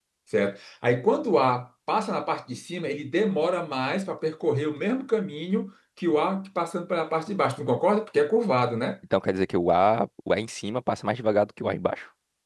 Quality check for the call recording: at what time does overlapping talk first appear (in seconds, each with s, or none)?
none